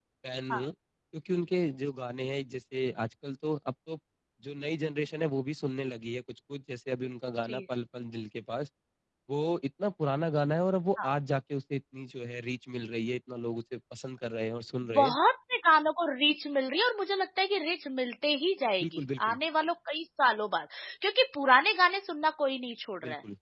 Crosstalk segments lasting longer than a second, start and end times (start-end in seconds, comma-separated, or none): none